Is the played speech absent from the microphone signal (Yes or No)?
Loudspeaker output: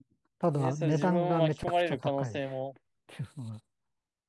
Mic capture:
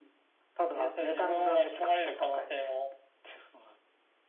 No